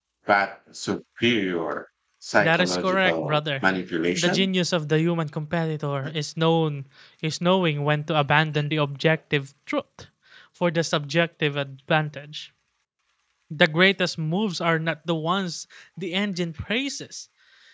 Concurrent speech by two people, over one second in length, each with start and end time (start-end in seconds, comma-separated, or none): 2.4-3.6